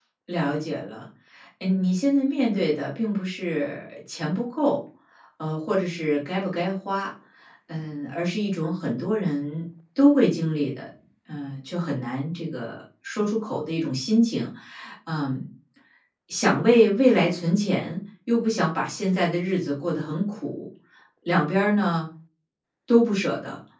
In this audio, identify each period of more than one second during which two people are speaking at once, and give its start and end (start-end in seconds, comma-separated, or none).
none